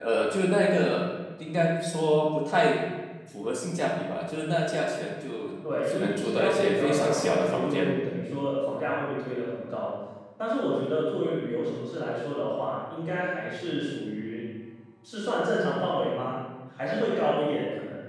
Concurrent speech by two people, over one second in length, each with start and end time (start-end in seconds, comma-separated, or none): 5.9-8.0